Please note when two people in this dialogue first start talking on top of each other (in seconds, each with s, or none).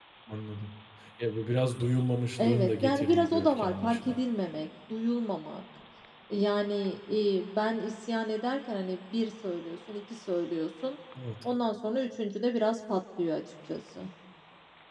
2.4 s